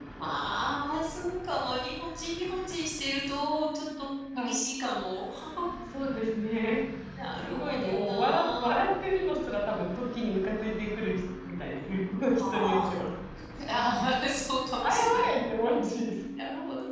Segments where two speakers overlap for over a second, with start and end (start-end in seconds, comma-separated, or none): 7.5-8.9